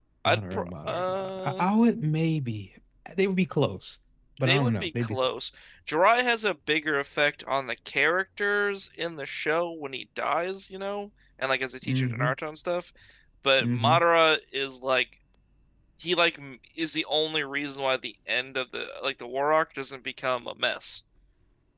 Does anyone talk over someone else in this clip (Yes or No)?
Yes